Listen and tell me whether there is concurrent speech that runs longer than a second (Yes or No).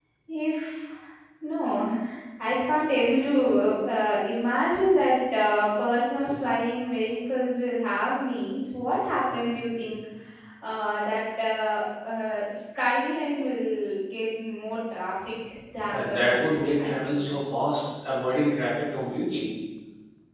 Yes